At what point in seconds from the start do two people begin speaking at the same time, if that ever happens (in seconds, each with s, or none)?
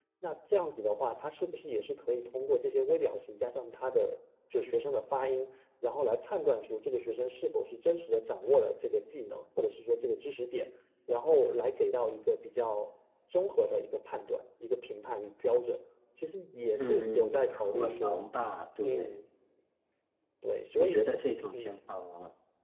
16.8 s